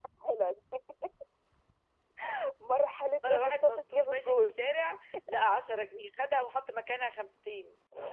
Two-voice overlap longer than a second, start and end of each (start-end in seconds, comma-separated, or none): 3.3-4.6